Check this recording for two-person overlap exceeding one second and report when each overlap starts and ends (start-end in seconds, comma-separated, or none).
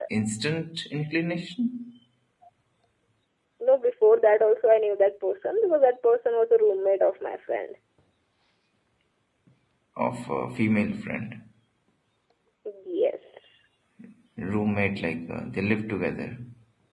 none